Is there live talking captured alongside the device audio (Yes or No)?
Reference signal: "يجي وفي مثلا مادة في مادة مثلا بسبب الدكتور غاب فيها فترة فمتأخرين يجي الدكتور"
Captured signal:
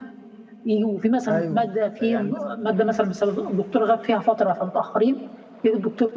Yes